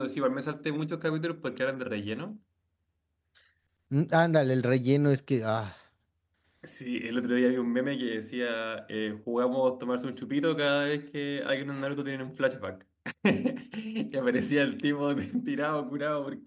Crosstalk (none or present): none